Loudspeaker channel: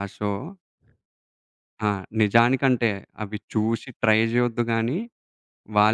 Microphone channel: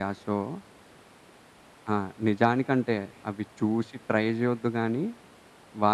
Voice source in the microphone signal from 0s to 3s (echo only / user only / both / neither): echo only